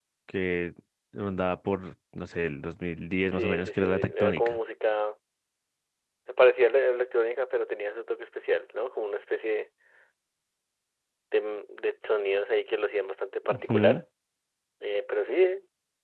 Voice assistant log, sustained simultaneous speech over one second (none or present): present